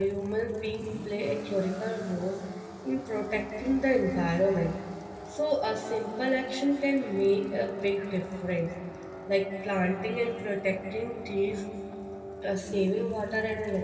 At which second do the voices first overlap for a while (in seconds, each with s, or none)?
none